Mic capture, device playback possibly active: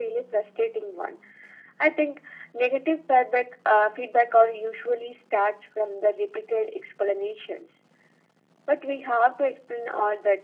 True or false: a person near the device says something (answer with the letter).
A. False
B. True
A